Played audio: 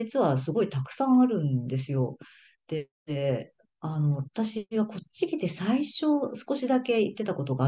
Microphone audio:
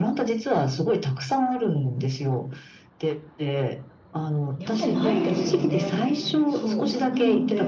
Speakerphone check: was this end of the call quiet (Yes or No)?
No